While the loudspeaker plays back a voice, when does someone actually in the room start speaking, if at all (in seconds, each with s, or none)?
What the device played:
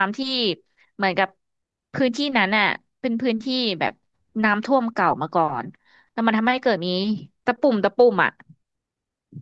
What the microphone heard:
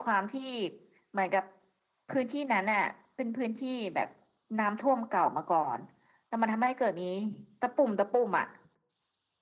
none